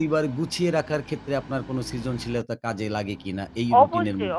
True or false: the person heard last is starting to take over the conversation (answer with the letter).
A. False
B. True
B